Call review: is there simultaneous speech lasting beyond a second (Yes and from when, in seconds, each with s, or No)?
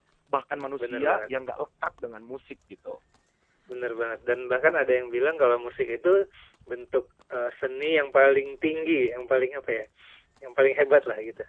No